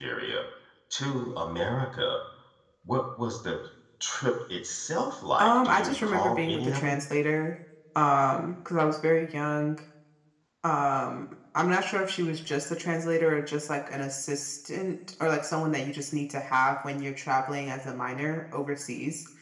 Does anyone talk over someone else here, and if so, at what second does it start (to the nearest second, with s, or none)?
5 s